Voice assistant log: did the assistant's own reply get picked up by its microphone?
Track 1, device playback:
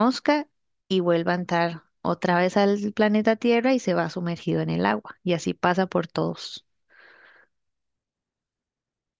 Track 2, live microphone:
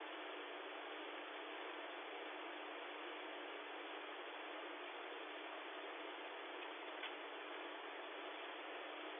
No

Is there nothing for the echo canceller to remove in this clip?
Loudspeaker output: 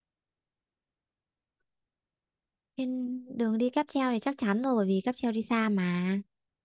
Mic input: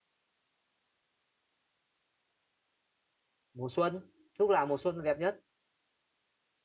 Yes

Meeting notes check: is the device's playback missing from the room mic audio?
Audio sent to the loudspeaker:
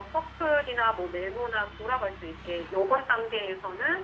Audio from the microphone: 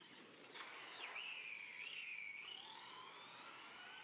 Yes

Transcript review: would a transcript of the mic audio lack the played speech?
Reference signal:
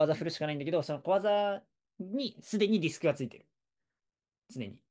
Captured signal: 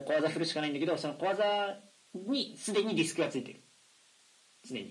No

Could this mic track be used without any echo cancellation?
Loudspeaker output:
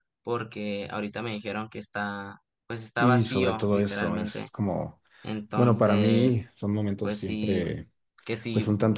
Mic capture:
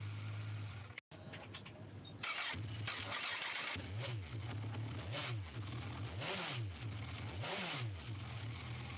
Yes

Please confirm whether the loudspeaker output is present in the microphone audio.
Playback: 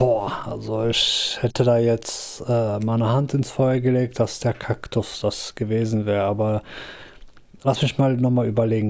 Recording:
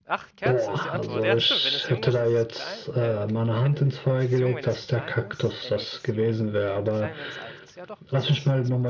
Yes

